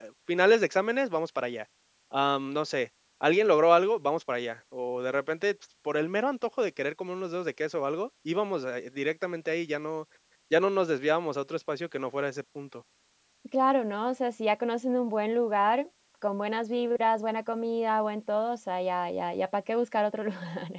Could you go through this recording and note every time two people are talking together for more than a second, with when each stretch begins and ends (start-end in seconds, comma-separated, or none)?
none